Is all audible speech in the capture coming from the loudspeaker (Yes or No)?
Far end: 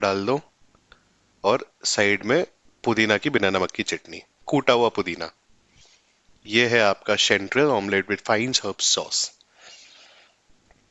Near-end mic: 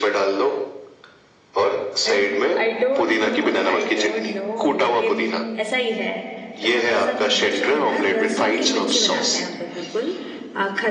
No